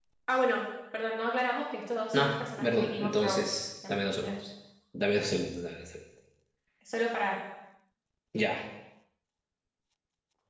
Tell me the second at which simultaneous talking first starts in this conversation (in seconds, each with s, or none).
2.1 s